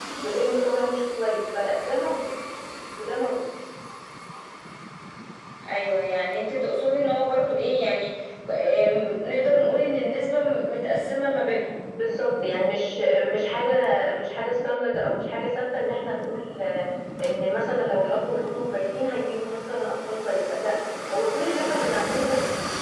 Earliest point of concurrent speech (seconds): none

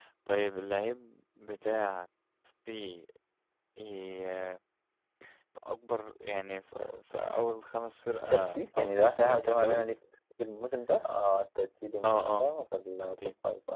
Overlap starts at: 8.3 s

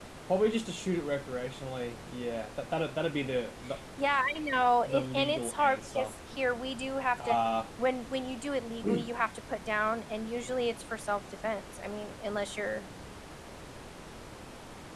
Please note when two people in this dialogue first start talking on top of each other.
4.9 s

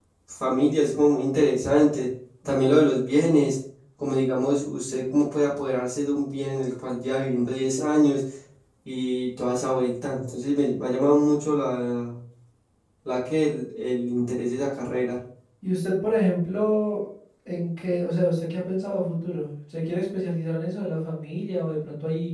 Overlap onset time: none

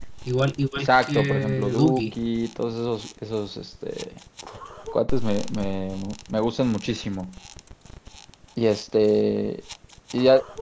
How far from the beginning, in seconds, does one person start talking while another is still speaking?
0.8 s

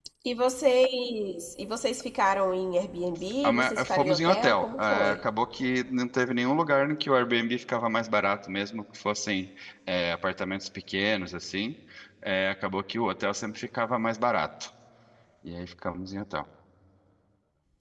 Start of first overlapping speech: 3.4 s

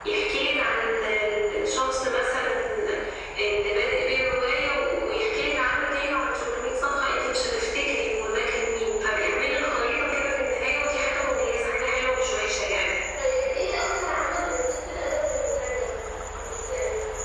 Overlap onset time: none

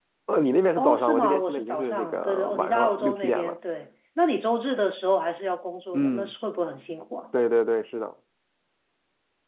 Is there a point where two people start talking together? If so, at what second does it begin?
0.8 s

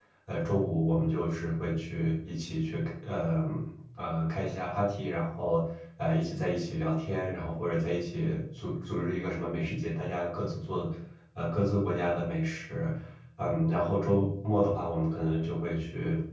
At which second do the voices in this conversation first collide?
none

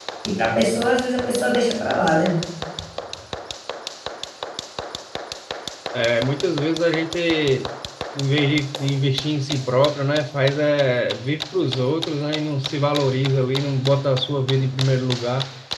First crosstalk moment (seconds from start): none

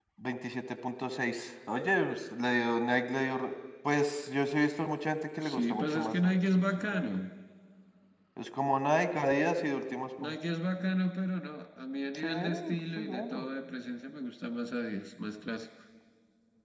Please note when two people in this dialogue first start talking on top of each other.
5.4 s

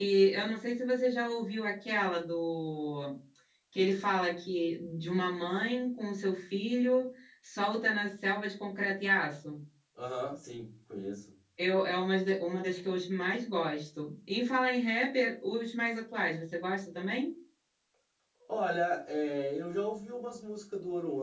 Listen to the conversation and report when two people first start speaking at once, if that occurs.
none

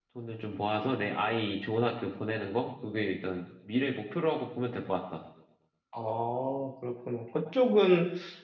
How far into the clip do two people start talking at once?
none

